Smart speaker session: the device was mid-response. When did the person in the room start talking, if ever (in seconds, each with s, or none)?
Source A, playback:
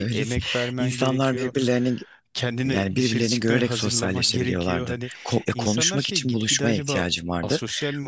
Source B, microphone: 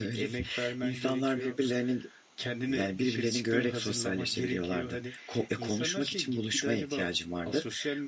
none